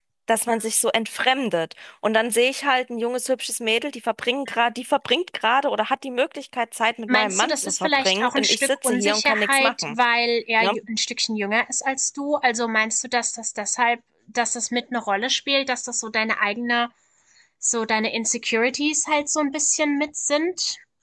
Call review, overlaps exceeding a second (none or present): present